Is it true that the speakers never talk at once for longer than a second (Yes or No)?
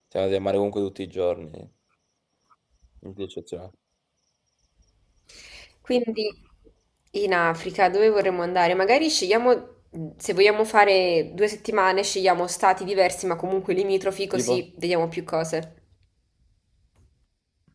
Yes